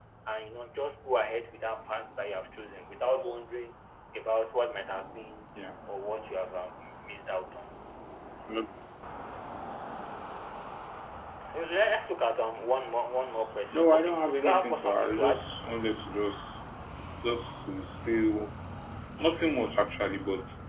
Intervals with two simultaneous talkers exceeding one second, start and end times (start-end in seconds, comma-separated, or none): 13.7-15.5